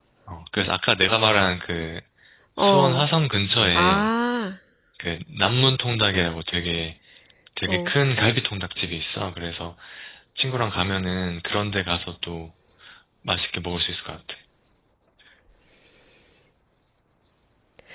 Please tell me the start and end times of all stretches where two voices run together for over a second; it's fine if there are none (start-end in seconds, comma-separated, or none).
none